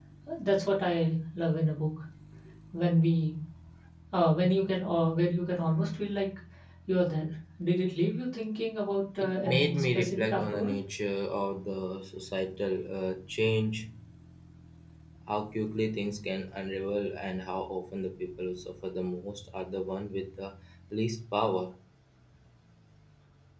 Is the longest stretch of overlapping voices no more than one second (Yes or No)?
No